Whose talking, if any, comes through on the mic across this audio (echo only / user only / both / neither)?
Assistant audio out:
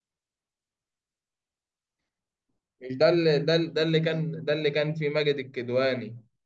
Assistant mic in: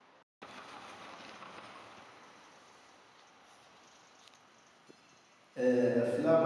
user only